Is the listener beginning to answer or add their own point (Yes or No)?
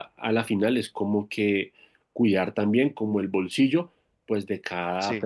No